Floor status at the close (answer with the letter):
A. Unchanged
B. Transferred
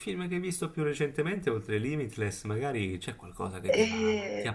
A